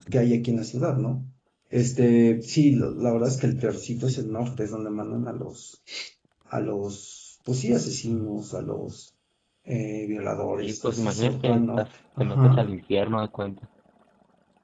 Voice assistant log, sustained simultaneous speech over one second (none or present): present